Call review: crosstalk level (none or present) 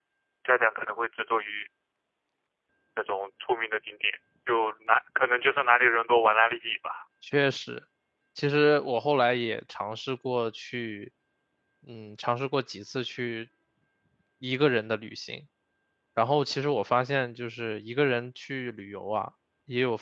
none